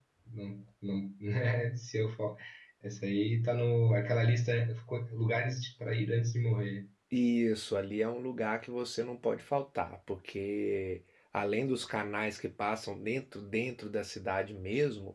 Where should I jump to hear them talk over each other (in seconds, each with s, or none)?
none